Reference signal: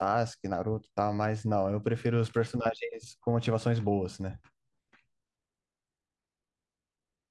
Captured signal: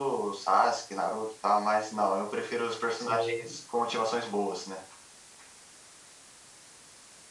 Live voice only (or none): sim,